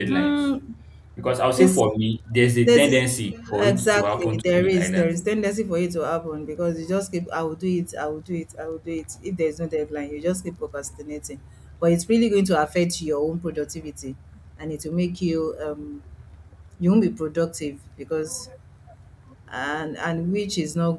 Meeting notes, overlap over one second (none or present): present